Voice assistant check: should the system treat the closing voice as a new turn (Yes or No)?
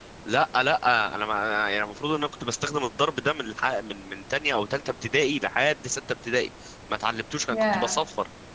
No